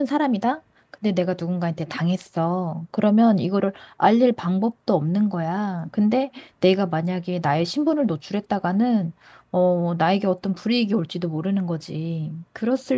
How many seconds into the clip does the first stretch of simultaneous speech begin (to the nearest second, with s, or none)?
none